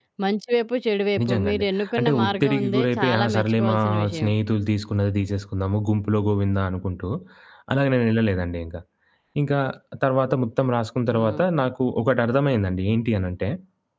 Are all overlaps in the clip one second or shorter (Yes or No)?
No